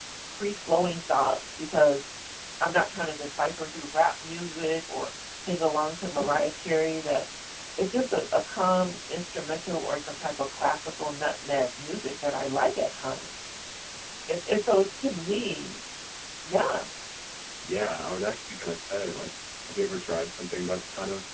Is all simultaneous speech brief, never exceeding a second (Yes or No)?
Yes